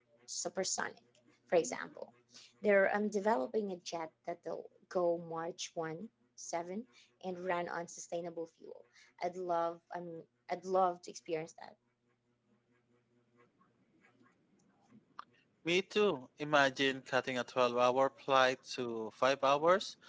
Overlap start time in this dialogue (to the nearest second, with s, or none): none